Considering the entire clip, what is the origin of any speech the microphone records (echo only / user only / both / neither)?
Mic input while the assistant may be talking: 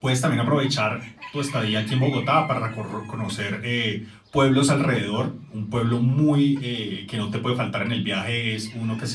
user only